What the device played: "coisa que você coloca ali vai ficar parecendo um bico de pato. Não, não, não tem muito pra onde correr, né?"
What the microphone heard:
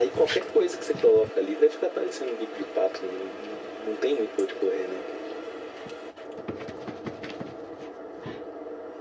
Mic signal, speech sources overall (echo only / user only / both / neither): echo only